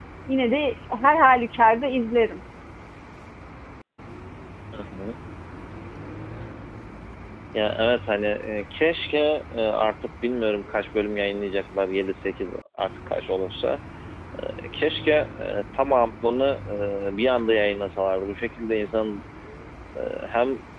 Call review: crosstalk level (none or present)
none